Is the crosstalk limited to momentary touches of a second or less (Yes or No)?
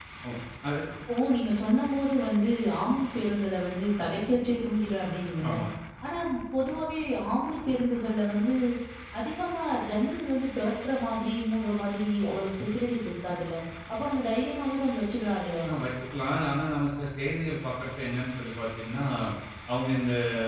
Yes